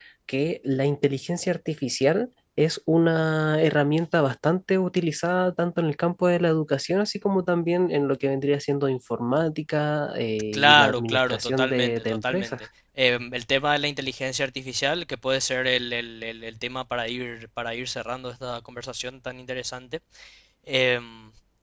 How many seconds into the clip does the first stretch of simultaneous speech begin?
10.5 s

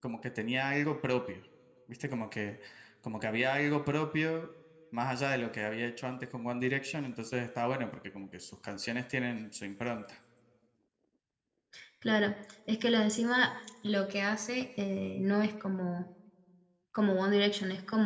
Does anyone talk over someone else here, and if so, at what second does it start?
none

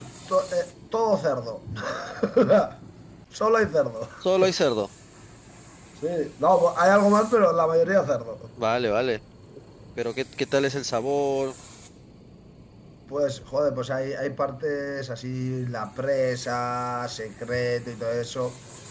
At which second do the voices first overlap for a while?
none

